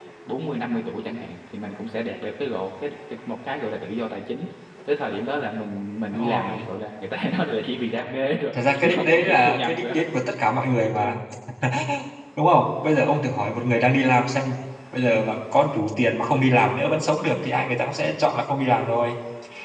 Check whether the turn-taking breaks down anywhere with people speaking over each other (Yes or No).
Yes